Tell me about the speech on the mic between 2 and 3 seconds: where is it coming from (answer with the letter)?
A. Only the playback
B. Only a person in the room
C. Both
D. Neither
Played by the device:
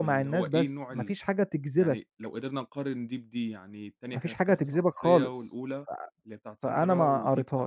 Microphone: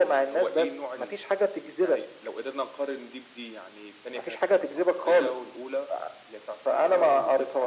A